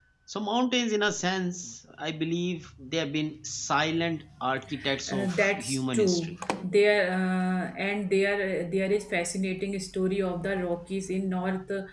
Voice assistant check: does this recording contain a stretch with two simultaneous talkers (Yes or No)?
Yes